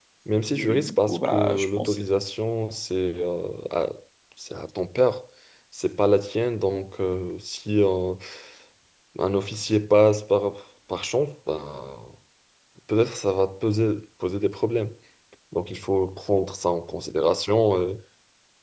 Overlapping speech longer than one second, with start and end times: 0.6-2.0

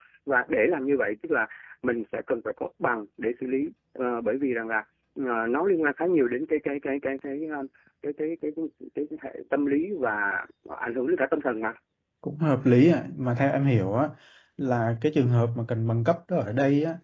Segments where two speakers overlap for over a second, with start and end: none

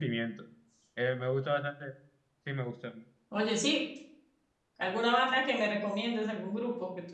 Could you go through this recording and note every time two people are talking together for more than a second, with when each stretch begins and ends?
none

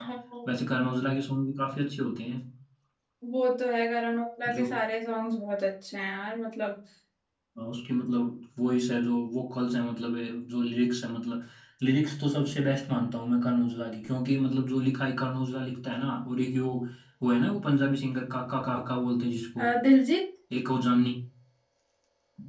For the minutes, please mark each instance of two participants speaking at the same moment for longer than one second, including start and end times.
none

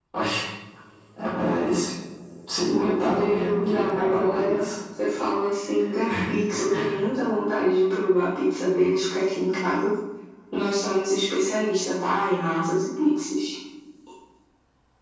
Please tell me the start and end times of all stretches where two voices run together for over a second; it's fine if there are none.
2.8-4.7

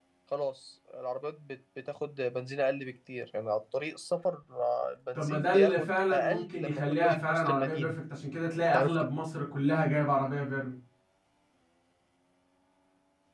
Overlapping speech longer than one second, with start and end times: 5.2-7.9

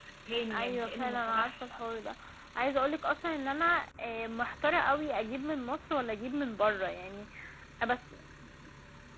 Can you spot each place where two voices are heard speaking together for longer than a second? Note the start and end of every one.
0.5-1.8

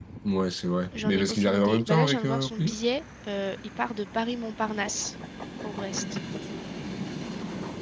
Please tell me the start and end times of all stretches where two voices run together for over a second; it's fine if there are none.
1.0-2.7

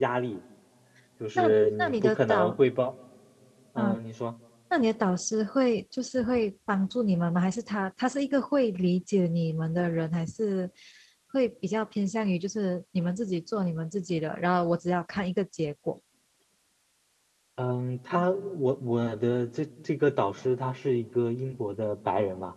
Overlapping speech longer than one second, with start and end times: 1.4-2.6

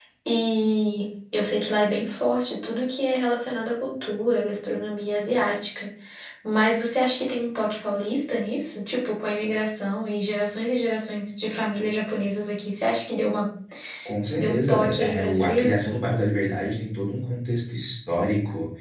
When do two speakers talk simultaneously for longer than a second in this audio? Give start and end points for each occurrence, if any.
14.3-15.8

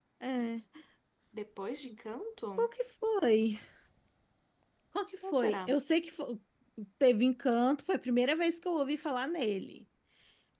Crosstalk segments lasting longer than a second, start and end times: none

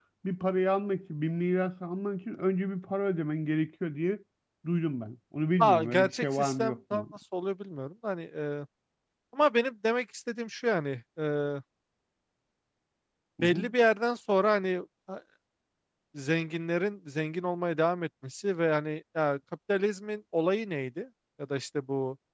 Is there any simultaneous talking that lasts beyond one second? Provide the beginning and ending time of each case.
5.6-7.0

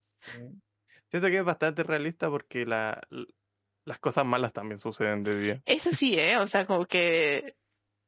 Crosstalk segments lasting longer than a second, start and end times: none

